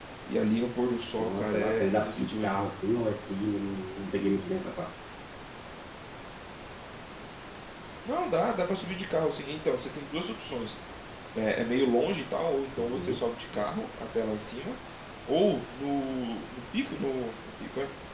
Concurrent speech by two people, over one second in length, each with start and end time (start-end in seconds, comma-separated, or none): 1.2-2.6